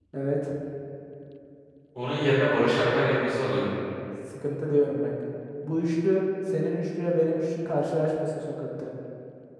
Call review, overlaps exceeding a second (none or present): none